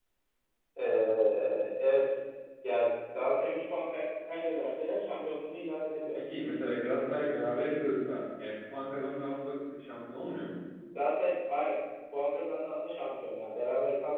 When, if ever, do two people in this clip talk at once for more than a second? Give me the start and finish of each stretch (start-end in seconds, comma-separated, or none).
none